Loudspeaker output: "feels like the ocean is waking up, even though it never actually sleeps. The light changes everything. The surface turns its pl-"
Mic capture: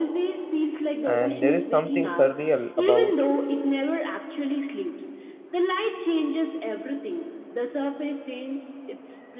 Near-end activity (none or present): present